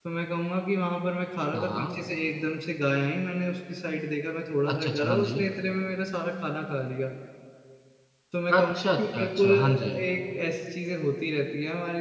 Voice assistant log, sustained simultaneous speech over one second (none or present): present